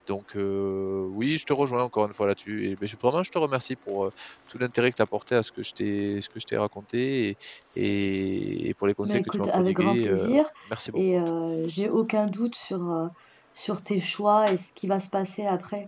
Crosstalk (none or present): present